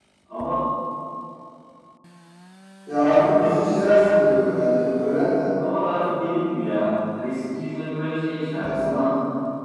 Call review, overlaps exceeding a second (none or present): present